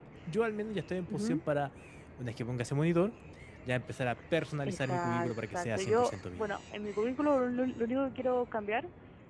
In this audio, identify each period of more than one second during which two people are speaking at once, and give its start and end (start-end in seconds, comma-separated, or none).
4.7-6.5